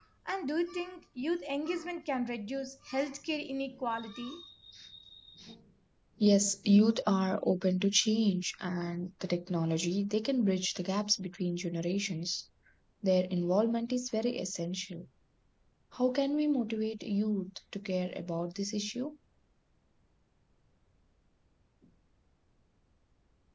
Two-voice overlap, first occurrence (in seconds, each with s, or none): none